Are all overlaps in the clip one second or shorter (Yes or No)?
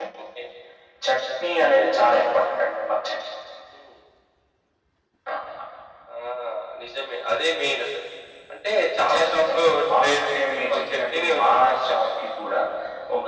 No